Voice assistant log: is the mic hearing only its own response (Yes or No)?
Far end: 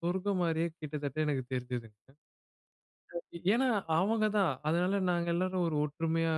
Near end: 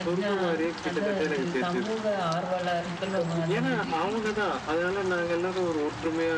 No